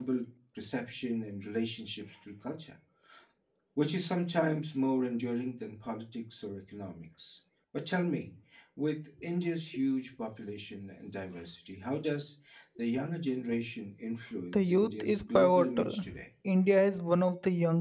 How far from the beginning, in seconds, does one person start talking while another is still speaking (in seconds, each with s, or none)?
14.5 s